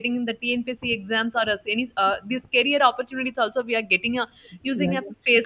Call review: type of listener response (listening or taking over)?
taking over